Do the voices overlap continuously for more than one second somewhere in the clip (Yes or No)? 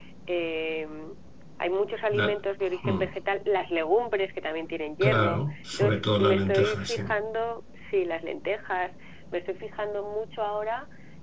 Yes